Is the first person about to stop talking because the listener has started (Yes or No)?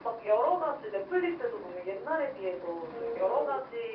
No